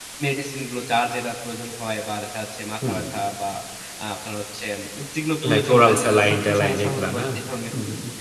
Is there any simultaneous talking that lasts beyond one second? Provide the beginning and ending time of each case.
5.5-7.2

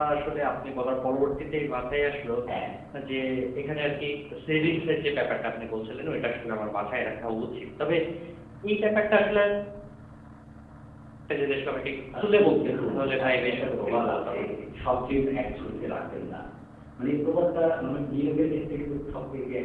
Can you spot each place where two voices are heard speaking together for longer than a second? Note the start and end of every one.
12.2-14.4

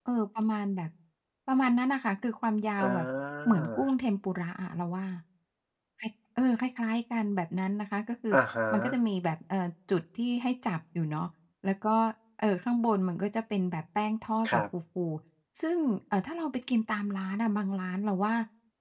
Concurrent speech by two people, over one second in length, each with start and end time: none

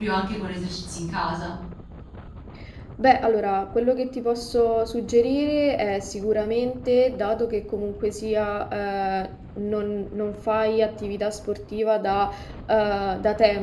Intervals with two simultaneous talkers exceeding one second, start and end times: none

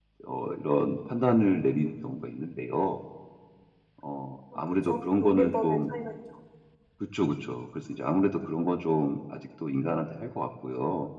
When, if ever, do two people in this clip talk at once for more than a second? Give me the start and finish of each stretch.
4.5-5.8

